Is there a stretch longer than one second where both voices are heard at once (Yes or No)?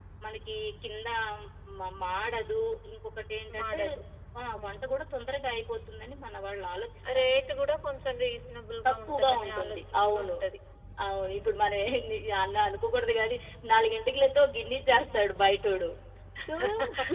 Yes